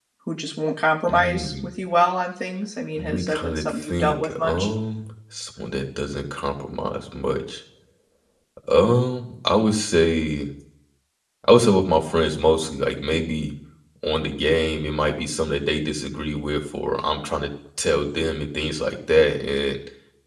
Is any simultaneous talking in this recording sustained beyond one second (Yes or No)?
Yes